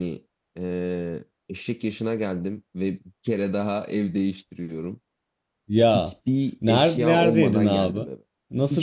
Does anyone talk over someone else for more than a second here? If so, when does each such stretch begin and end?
6.7-8.1

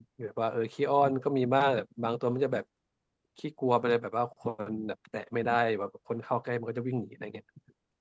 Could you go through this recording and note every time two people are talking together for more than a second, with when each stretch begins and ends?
none

